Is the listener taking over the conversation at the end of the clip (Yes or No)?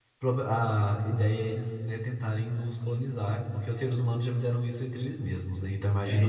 Yes